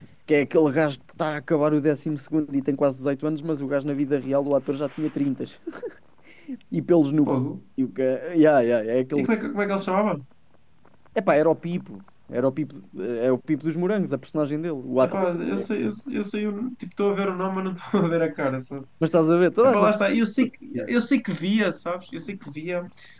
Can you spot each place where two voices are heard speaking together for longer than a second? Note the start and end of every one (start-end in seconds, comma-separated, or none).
none